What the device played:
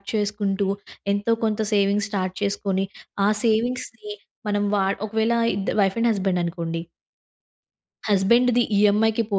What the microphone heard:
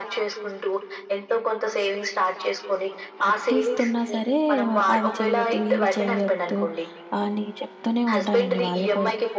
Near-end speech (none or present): present